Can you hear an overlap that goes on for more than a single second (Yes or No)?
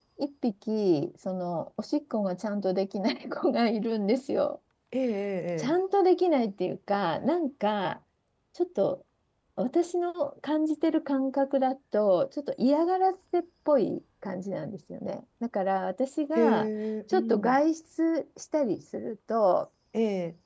No